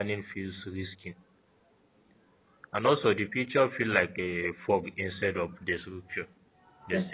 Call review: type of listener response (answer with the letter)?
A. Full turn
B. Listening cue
A